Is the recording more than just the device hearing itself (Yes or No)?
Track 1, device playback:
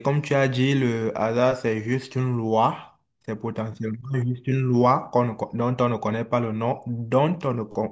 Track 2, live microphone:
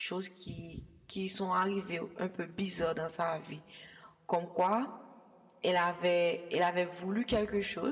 Yes